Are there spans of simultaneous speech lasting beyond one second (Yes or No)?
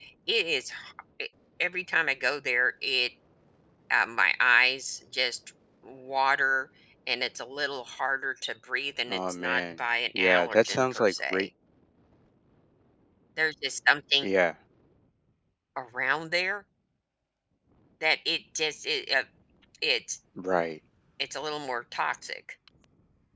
Yes